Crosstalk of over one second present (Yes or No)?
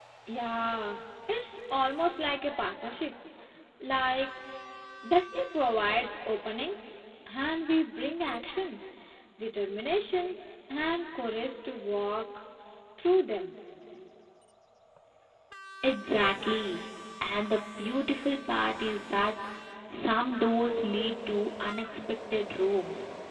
No